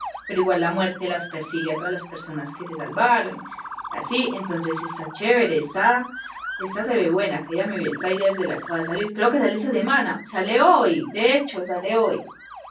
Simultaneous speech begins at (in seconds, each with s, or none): none